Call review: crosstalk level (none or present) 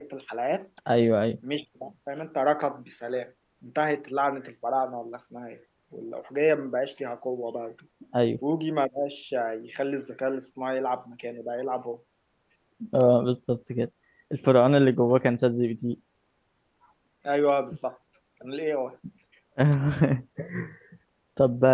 none